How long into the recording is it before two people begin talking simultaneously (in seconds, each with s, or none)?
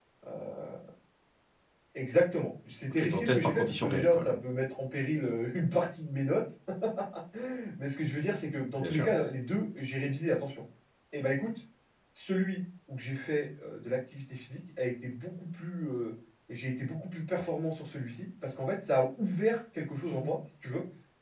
2.9 s